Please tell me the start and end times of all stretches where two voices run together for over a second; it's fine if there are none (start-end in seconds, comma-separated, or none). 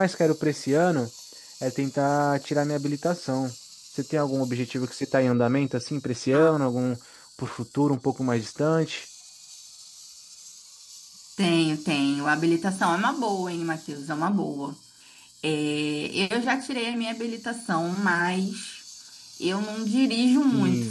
none